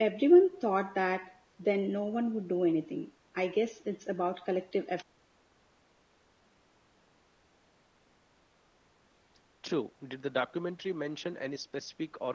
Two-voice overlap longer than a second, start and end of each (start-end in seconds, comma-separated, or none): none